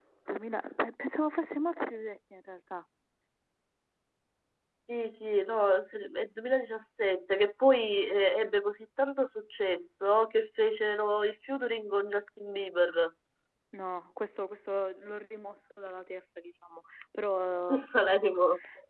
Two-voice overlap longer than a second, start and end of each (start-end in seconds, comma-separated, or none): none